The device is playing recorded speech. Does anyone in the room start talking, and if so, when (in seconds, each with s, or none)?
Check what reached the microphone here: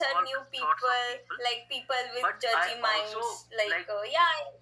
none